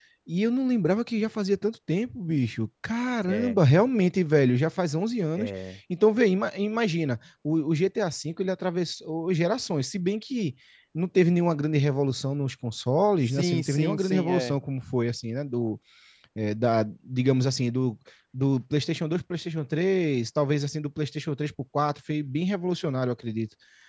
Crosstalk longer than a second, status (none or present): present